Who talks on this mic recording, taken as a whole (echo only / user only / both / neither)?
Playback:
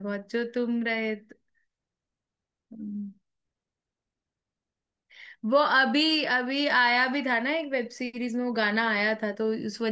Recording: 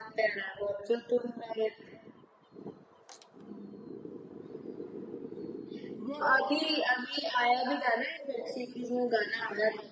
echo only